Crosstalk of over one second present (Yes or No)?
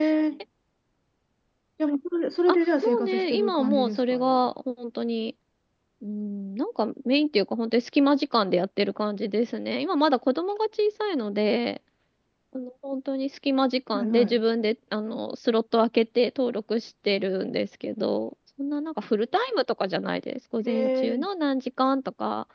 Yes